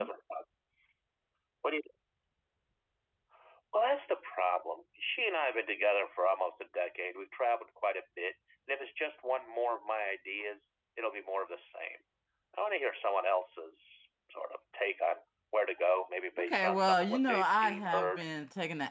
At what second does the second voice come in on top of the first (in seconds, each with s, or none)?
16.4 s